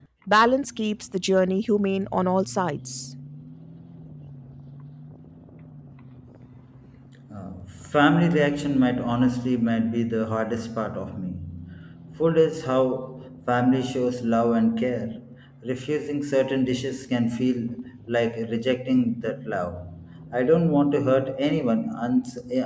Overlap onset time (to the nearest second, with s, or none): none